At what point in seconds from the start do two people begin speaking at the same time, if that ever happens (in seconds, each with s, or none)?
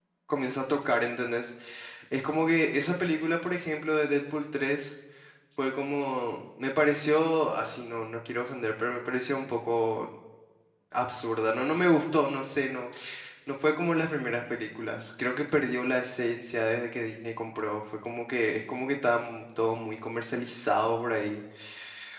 none